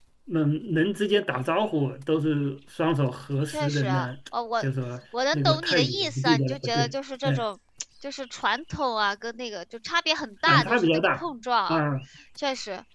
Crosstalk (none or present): present